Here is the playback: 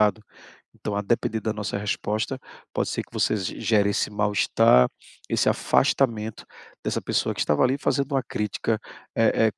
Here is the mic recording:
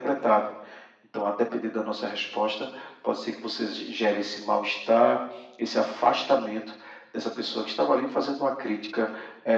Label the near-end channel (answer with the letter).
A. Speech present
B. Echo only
B